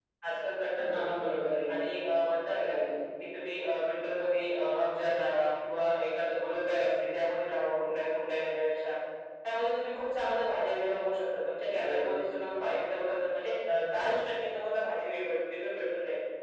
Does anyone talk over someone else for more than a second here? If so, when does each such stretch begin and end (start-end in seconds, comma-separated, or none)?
none